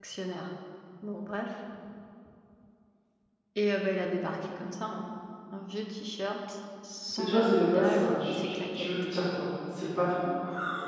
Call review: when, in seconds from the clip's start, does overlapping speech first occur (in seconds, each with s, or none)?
7.2 s